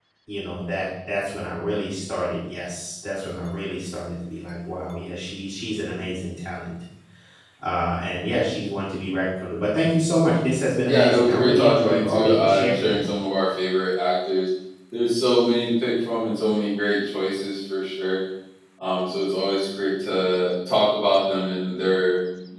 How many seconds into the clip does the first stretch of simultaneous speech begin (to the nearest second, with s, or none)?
11 s